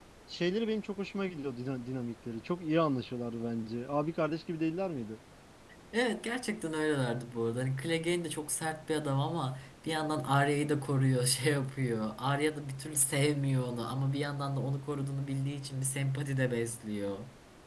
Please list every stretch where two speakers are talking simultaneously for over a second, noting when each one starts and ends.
none

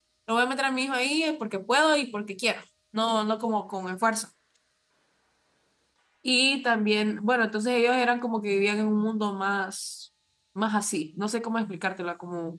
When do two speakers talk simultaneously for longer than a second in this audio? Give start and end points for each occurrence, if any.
none

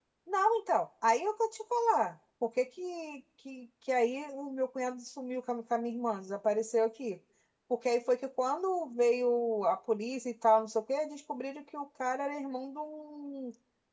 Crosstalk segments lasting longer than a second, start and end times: none

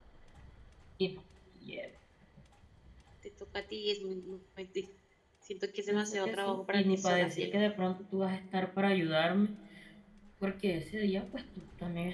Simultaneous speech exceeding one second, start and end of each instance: 5.9-7.6

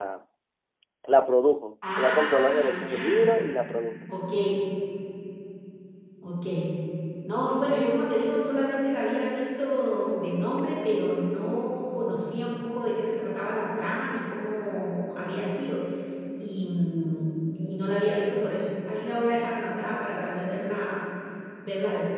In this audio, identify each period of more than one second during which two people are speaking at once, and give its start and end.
2.0-3.3

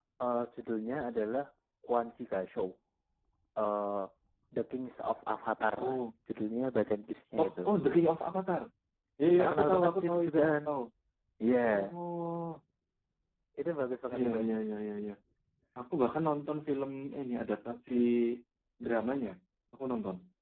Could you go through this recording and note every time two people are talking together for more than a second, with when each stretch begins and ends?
9.4-10.6

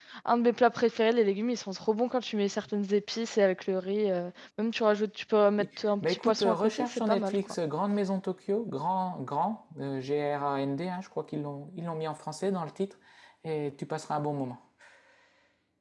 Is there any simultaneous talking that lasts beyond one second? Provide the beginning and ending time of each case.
6.1-7.3

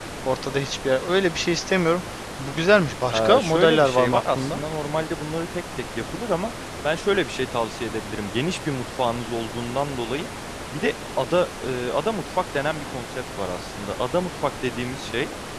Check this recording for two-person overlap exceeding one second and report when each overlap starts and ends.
3.1-4.6

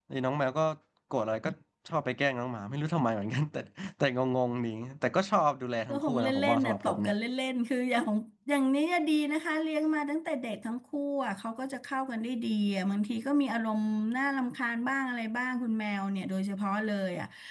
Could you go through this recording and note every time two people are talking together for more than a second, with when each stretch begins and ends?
5.9-7.1

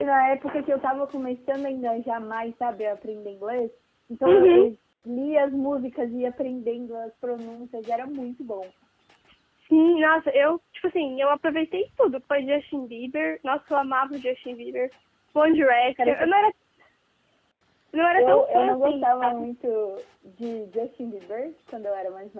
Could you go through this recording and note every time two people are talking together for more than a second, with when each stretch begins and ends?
18.2-19.4

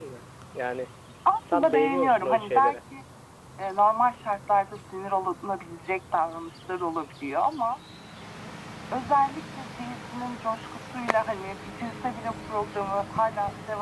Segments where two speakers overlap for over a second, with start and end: 1.5-2.8

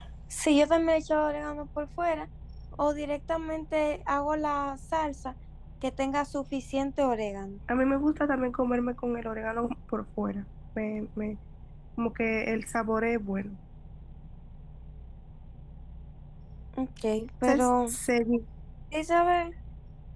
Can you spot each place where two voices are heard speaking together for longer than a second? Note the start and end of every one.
none

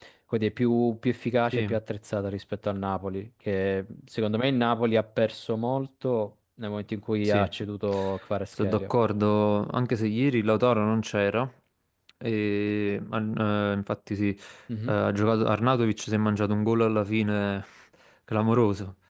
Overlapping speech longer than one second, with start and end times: none

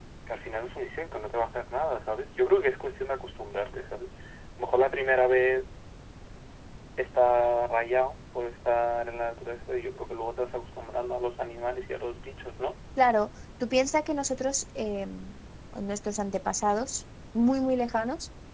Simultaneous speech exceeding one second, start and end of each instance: none

